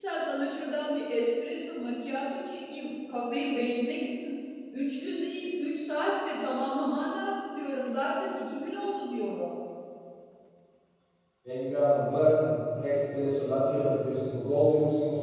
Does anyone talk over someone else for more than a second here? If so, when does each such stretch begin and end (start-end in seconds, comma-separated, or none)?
none